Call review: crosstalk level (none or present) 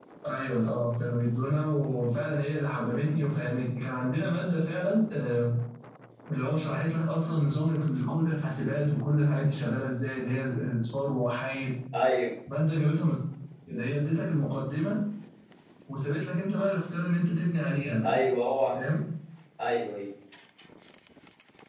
none